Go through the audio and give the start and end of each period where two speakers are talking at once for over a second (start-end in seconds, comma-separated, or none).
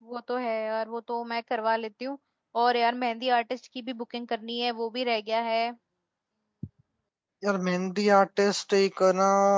none